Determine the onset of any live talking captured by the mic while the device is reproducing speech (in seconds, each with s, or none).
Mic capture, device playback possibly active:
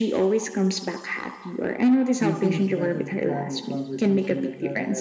2.2 s